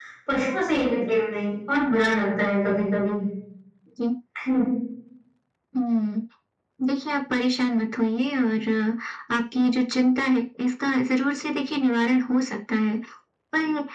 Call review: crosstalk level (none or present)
none